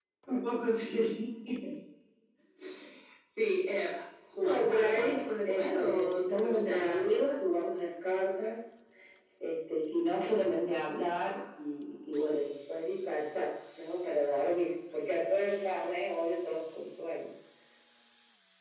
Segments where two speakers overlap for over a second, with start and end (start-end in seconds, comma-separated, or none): 4.4-7.4